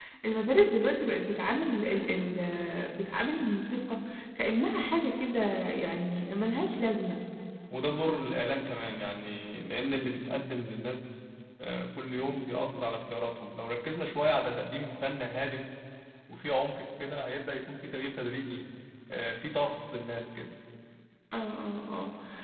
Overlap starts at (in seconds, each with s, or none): none